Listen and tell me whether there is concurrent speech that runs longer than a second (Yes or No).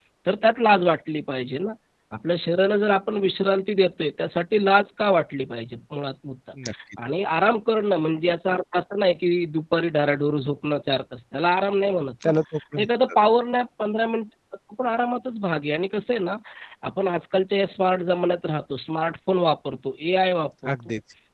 No